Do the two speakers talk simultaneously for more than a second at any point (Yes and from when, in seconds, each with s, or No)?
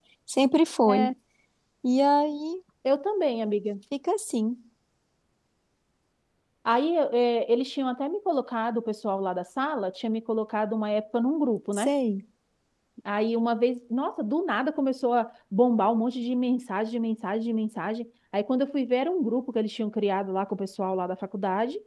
No